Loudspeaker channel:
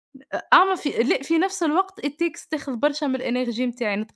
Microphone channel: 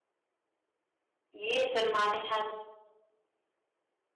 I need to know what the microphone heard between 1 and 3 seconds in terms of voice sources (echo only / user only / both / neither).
user only